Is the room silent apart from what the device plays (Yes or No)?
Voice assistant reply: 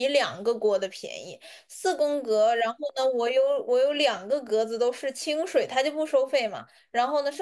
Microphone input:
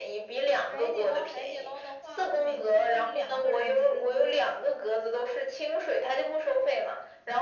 No